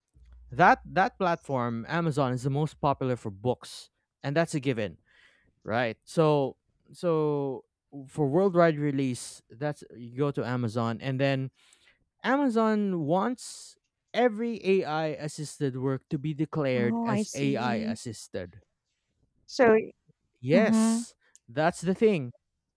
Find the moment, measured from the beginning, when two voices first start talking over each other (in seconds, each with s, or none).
16.8 s